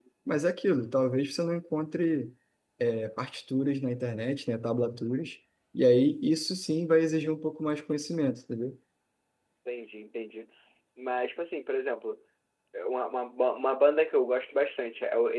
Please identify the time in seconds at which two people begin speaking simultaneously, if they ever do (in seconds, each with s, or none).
none